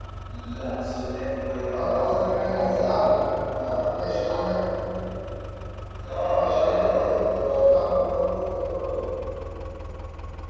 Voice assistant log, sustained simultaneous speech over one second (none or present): present